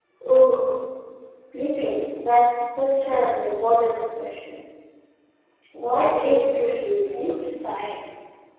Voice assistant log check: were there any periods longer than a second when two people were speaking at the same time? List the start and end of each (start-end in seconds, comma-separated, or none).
6.0-7.4